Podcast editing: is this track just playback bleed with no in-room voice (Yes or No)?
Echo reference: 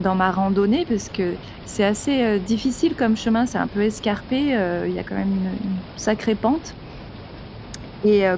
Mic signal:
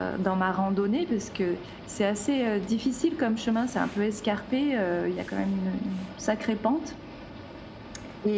Yes